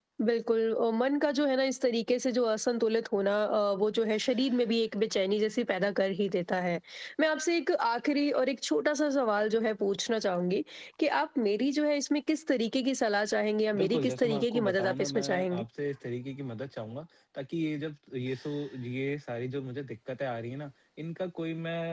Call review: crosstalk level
present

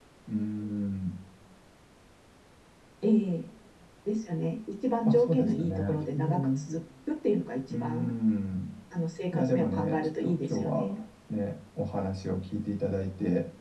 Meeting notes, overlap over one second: present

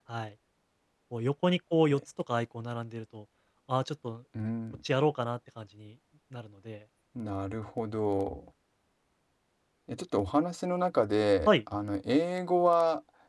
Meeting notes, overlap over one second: none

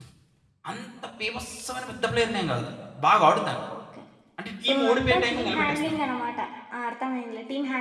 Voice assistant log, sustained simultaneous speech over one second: present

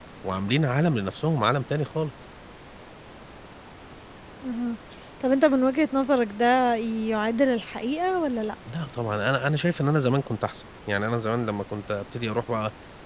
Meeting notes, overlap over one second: none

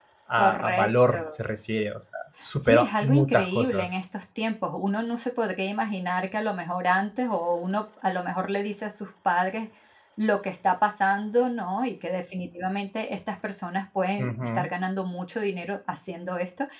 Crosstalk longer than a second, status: present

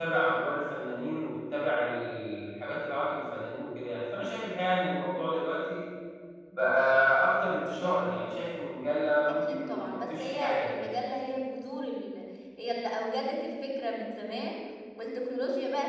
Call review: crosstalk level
present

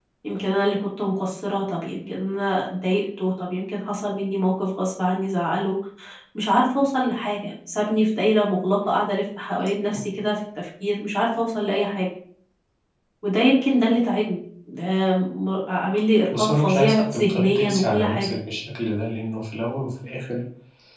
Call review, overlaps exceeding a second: present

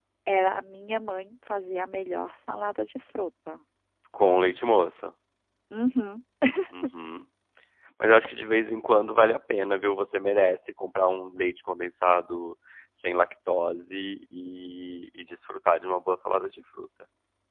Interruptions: none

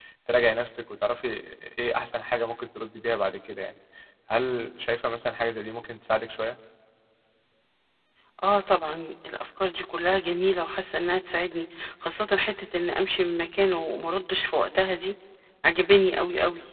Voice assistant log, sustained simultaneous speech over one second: none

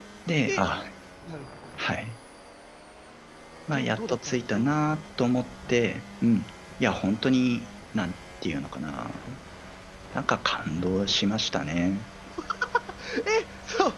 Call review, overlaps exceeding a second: present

